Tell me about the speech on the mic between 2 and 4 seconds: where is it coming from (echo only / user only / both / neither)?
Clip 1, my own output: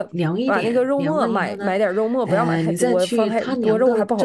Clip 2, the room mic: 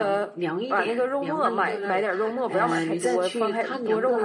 both